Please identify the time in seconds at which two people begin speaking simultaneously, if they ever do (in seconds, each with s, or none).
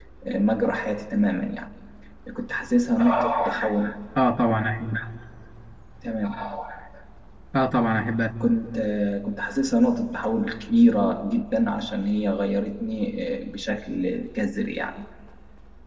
none